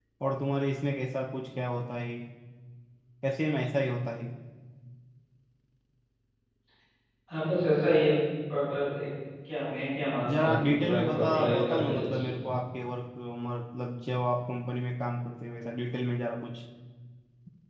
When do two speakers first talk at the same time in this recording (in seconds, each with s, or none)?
10.2 s